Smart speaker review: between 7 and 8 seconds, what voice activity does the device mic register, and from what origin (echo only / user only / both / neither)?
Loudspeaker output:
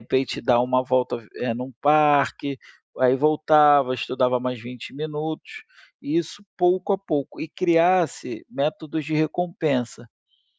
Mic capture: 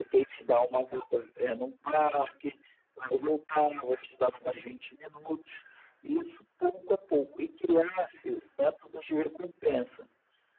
echo only